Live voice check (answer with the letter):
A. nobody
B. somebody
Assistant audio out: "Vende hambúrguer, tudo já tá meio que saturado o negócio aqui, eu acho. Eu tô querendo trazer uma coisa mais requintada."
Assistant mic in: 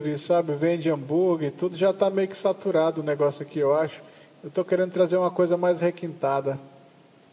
A